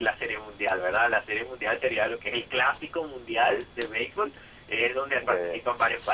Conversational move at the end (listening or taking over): listening